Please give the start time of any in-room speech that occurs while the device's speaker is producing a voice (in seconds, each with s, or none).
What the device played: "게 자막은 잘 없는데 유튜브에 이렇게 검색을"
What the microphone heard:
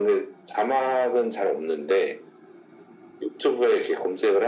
none